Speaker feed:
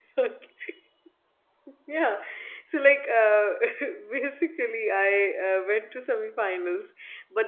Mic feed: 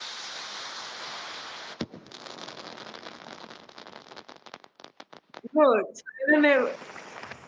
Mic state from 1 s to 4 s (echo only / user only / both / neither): neither